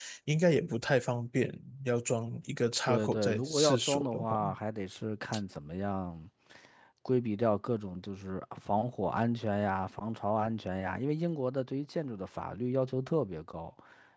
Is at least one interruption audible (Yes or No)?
Yes